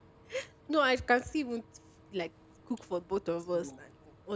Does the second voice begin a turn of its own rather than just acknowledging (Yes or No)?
No